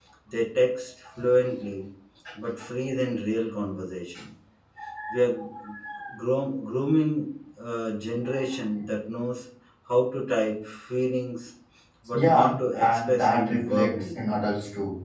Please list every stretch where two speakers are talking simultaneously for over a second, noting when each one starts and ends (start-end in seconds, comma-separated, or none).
12.1-14.2